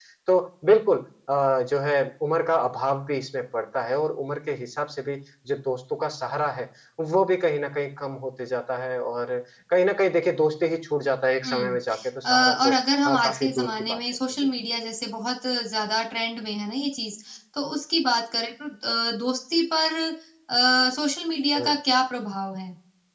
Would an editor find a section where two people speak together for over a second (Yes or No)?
Yes